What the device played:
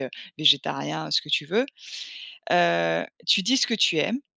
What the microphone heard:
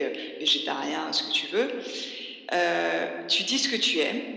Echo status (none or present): present